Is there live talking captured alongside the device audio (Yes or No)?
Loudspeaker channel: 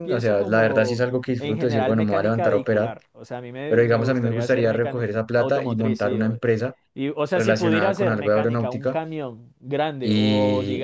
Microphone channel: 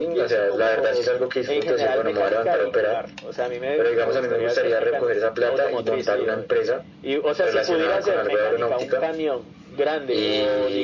No